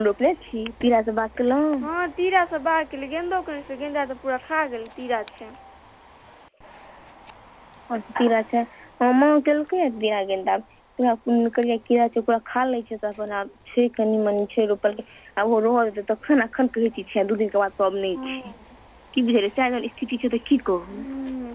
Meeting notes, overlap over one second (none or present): none